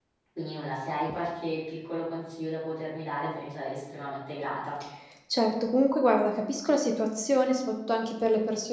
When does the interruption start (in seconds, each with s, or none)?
none